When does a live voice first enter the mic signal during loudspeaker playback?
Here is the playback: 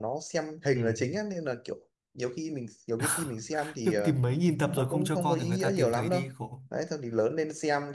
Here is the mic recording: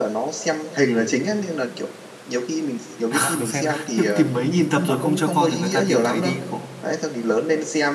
3 s

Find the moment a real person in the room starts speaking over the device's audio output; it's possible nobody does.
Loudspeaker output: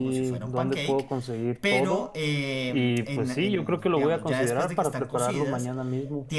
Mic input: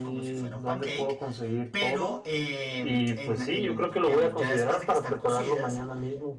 none

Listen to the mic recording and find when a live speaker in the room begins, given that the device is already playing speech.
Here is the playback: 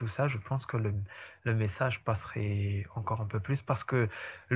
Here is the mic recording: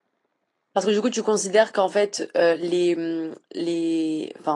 1 s

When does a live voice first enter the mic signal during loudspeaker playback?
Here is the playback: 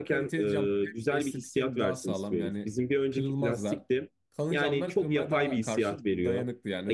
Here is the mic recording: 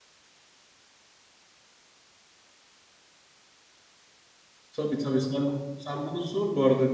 5 s

